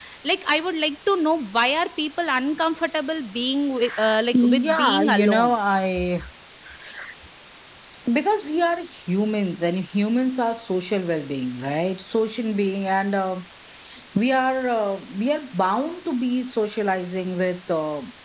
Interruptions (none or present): present